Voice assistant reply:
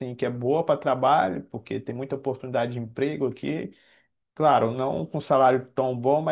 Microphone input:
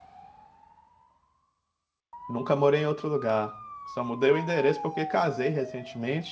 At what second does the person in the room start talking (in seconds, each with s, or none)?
2.3 s